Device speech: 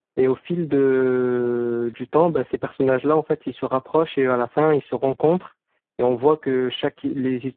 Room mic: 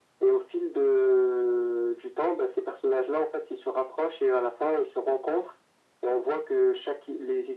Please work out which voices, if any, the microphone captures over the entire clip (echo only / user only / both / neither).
echo only